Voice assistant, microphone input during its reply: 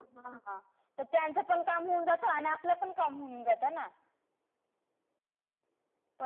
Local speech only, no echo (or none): none